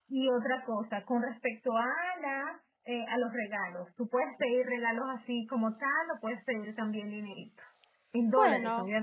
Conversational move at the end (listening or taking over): listening